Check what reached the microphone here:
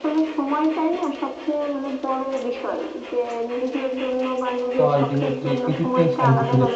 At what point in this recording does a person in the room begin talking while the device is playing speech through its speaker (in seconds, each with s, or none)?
4.8 s